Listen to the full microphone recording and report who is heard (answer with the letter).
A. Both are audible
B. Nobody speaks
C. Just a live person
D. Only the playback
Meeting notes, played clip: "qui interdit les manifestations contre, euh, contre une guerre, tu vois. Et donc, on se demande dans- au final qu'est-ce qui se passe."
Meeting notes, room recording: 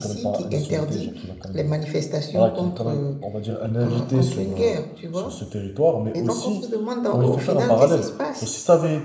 A